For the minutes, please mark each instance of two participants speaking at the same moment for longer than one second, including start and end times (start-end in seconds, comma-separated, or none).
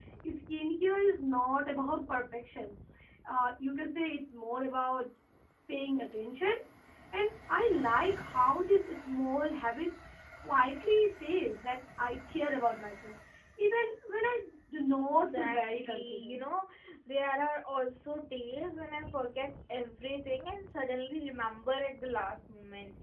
15.0-16.4